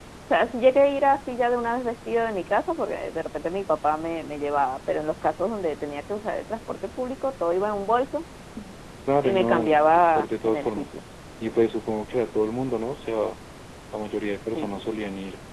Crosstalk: present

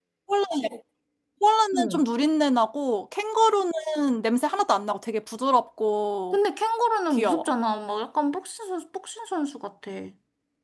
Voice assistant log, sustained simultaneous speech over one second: none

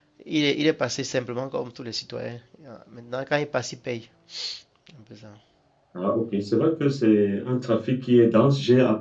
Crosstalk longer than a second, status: none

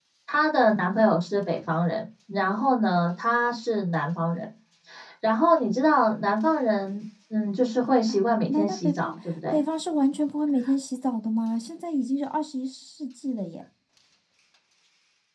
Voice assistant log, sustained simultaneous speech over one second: present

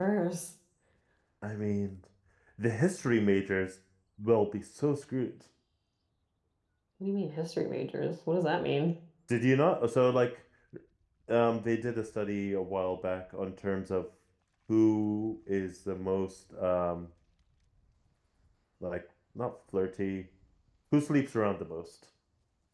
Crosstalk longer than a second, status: none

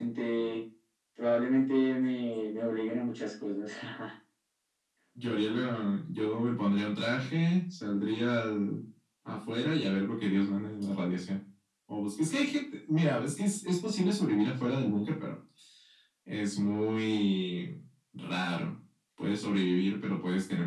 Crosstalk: none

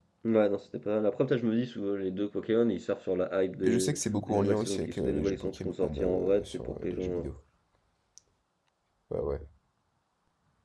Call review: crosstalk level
present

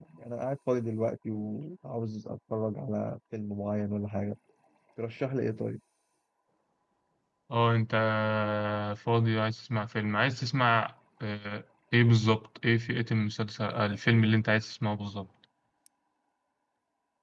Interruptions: none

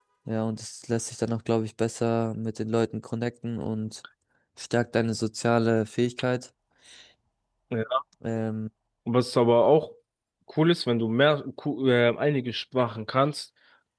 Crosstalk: none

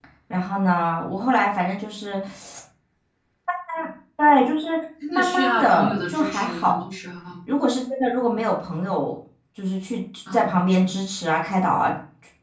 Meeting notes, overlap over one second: present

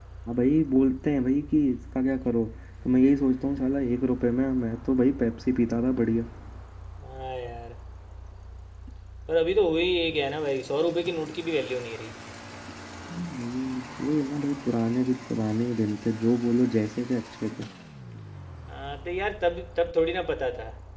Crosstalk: none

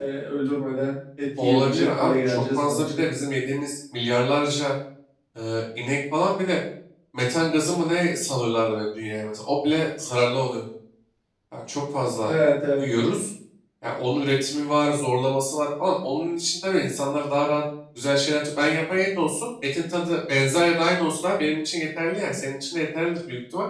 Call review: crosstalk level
present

